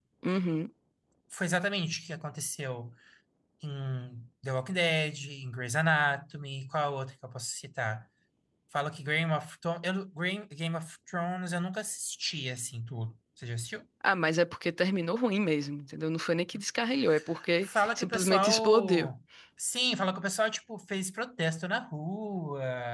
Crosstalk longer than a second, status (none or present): present